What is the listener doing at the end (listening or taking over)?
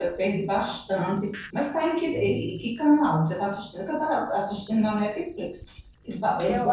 taking over